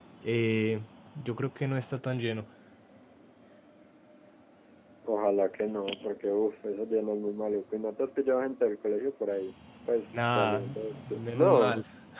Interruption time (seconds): 10.1 s

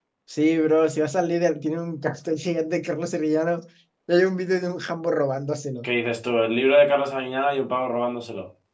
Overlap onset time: none

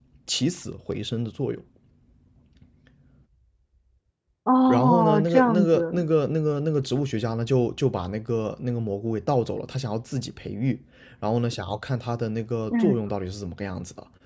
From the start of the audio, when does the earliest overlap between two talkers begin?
4.7 s

